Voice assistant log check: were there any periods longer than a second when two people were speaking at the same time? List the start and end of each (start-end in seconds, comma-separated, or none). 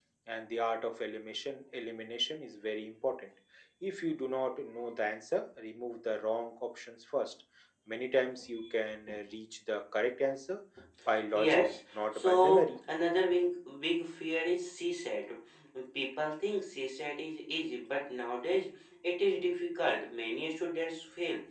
11.3-12.6